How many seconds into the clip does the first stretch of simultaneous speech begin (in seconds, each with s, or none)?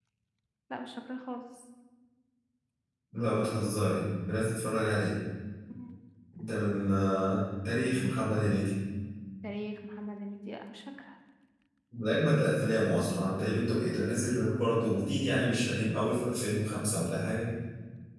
none